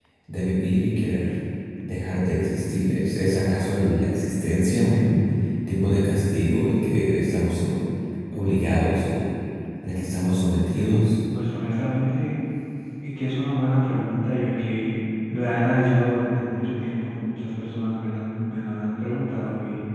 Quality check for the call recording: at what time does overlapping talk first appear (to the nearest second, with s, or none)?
none